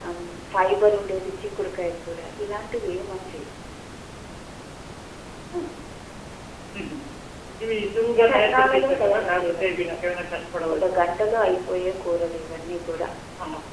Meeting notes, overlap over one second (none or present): present